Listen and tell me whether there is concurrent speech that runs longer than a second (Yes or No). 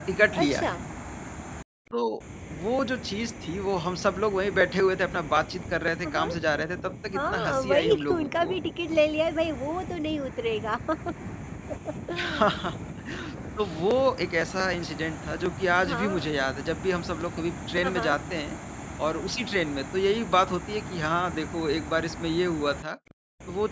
Yes